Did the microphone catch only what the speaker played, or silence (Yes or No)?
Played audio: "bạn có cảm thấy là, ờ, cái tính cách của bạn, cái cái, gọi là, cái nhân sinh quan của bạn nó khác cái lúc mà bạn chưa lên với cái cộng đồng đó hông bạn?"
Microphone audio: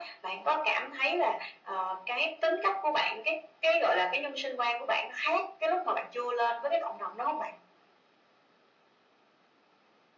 Yes